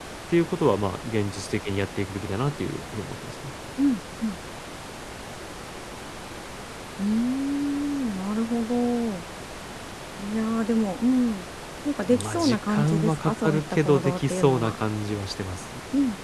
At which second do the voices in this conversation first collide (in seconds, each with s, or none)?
12.1 s